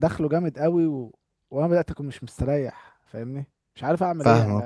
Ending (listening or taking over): taking over